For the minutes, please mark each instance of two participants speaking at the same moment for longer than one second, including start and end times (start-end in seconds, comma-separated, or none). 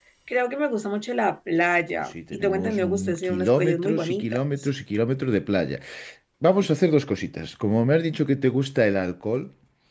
1.9-4.5